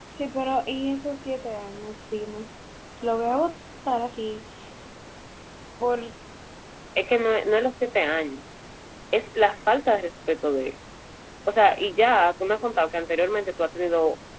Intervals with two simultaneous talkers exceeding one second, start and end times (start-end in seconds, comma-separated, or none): none